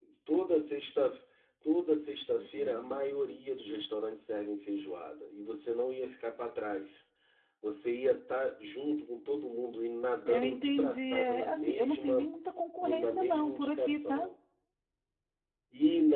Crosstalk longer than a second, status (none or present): present